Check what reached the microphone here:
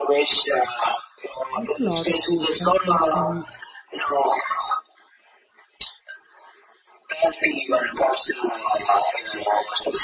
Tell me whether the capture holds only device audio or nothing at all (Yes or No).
No